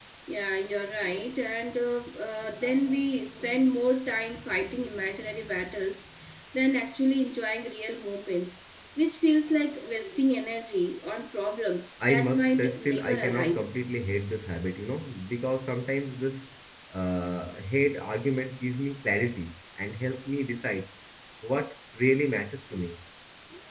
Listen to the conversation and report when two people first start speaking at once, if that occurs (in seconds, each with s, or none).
12.0 s